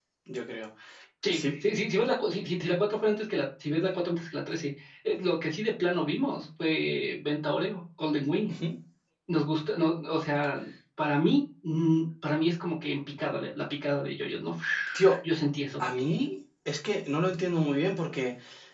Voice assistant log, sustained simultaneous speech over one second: none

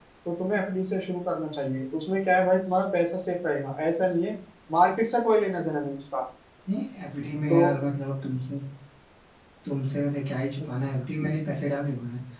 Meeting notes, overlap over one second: none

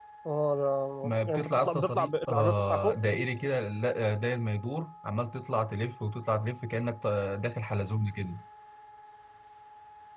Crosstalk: present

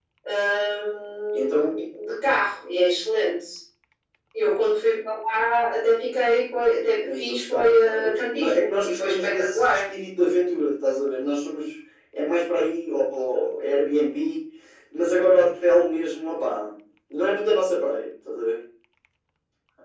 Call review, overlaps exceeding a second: present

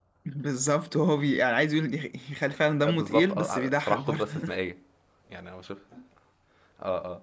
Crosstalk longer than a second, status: present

